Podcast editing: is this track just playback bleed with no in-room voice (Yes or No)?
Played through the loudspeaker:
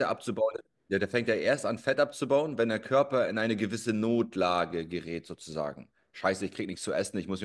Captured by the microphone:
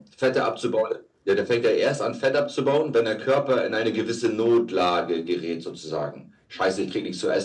Yes